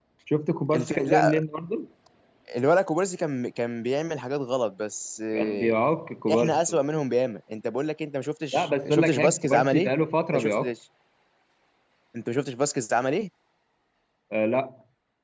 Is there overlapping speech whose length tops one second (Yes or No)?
Yes